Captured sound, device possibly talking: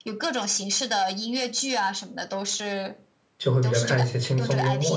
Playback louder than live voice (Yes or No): No